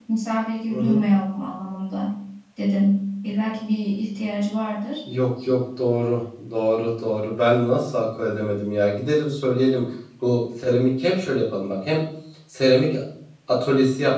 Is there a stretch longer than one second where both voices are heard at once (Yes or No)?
No